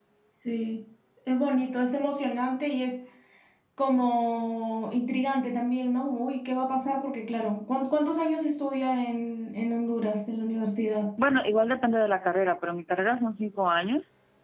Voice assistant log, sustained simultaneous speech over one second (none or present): none